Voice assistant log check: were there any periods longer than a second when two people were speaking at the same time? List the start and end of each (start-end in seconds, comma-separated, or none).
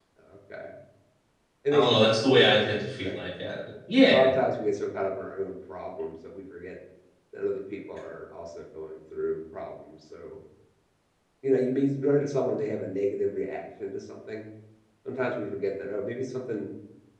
1.7-3.2